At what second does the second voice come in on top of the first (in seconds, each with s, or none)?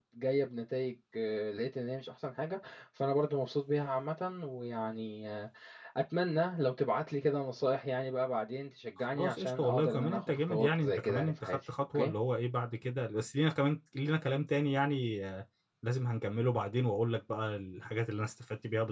9.0 s